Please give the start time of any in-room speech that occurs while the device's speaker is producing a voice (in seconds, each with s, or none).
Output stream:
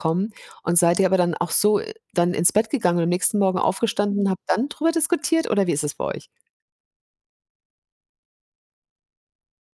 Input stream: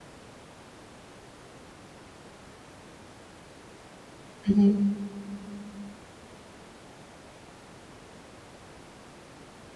4.4 s